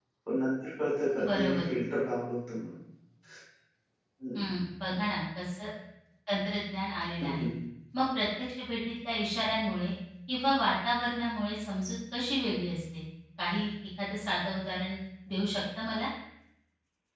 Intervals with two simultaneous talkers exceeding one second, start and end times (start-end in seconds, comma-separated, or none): none